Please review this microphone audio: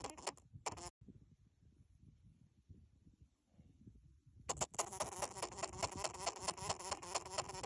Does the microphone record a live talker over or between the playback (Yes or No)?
No